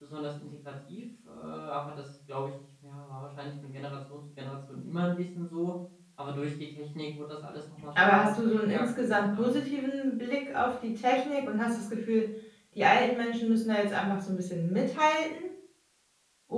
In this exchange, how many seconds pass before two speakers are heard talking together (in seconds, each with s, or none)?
8.0 s